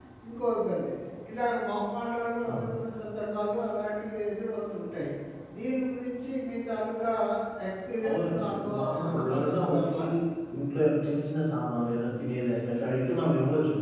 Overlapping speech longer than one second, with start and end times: 8.1-10.0

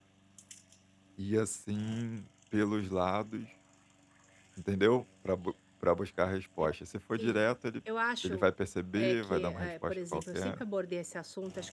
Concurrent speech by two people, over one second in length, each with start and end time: 8.9-10.6

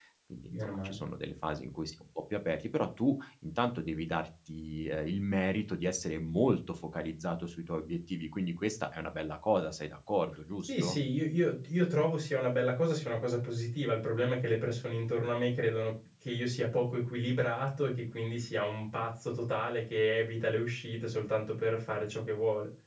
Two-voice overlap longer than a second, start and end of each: none

